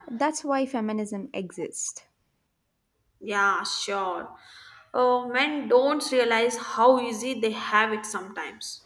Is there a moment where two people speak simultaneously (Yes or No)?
No